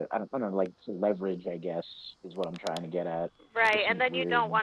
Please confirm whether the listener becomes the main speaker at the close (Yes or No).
Yes